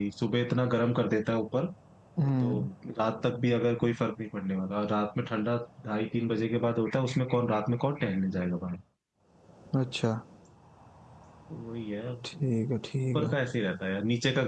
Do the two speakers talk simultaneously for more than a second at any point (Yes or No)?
No